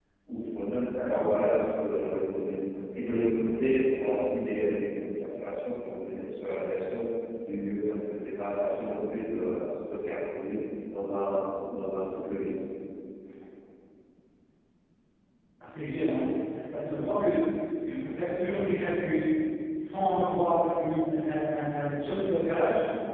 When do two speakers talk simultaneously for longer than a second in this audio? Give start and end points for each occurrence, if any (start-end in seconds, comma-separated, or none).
none